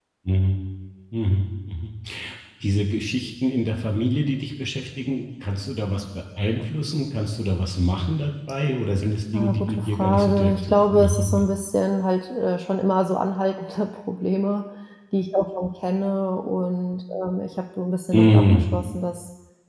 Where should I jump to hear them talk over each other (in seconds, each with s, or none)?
9.3 s